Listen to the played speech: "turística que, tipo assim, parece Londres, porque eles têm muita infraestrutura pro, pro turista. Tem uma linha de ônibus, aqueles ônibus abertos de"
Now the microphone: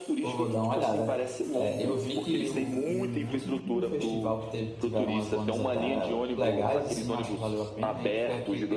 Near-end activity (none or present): present